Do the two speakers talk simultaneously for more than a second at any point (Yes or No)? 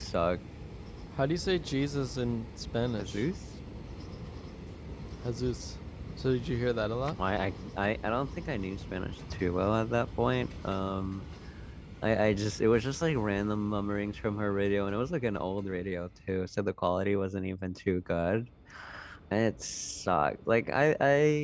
No